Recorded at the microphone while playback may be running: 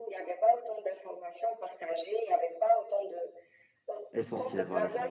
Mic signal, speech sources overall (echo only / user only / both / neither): both